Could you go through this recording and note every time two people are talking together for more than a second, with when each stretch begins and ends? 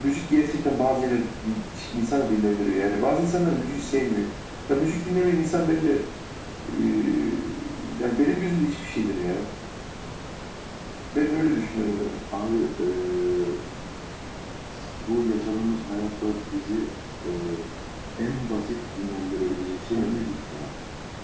none

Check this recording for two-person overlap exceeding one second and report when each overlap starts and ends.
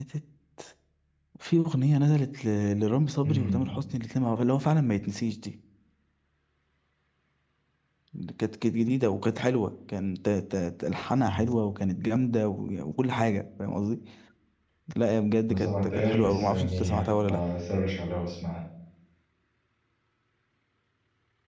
15.5-17.4

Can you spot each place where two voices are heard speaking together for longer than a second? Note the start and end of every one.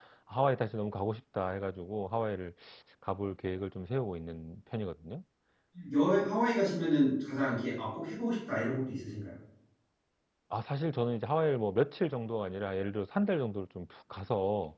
none

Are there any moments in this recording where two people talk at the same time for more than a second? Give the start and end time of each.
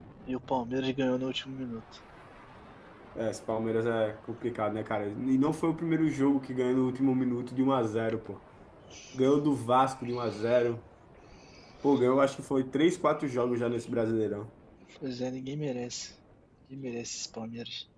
none

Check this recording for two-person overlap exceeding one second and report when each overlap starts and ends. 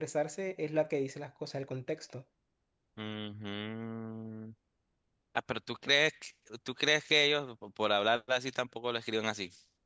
none

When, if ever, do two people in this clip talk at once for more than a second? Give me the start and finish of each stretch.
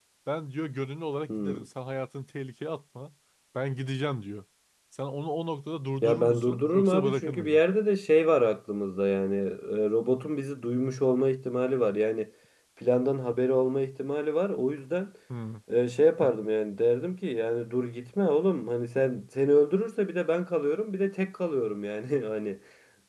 6.0-7.6

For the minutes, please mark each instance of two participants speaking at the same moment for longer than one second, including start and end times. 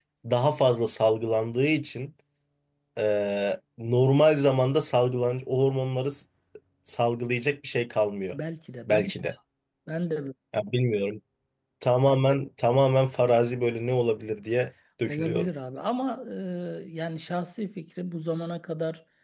none

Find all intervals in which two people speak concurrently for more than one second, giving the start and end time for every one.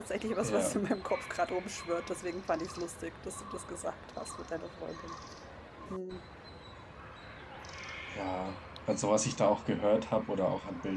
none

